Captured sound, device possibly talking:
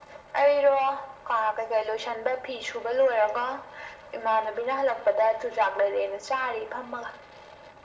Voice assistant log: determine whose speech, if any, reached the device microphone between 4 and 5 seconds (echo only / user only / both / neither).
echo only